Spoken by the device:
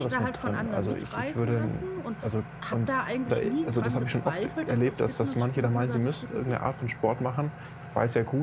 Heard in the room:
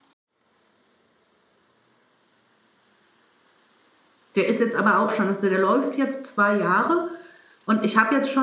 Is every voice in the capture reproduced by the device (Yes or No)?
No